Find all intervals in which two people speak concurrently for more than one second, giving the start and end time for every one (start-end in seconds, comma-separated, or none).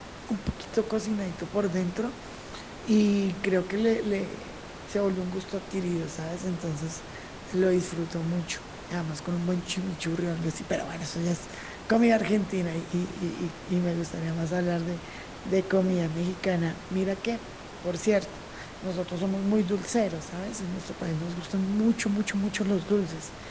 none